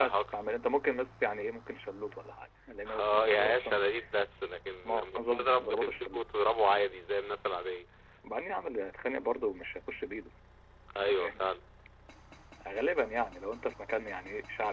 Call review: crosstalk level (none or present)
present